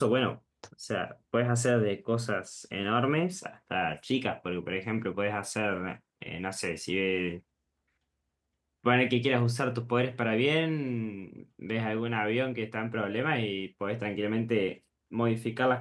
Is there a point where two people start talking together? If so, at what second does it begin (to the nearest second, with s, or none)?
none